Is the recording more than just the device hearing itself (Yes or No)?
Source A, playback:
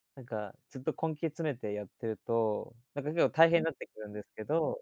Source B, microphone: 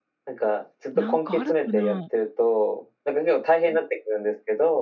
Yes